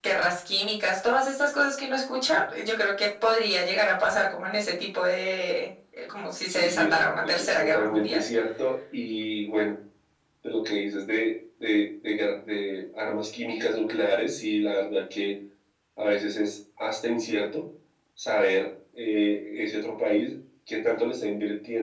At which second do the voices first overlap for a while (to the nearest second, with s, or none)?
6 s